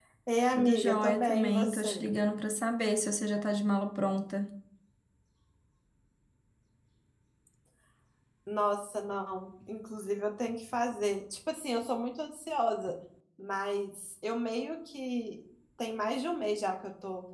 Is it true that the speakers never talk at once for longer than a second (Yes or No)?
No